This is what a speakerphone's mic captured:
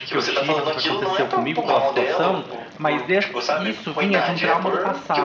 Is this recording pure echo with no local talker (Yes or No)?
No